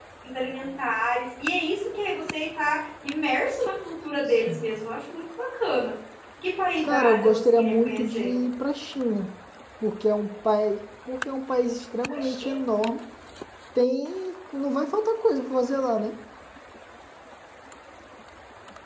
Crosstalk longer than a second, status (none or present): present